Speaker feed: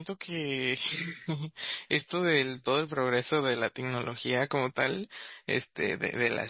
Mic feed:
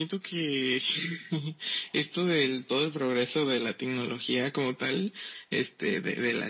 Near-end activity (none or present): none